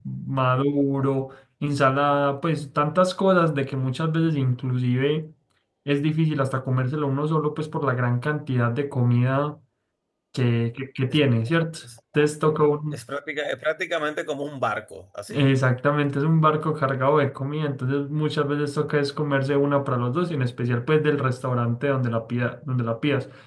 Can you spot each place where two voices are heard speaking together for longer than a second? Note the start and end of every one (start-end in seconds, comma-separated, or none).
none